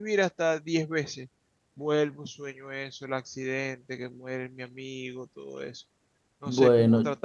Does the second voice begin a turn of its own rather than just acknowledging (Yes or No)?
Yes